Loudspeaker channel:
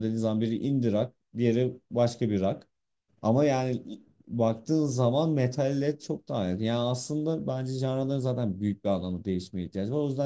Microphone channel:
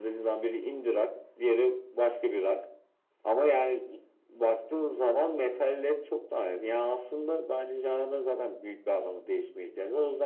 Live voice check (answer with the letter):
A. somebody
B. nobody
B